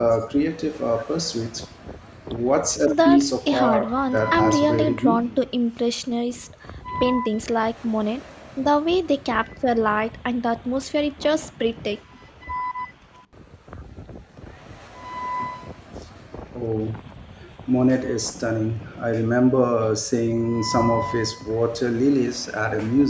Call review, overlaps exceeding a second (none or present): present